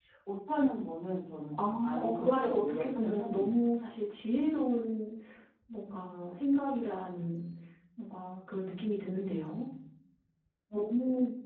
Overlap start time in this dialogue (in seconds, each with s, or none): 1.5 s